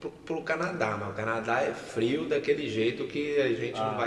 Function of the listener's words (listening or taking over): taking over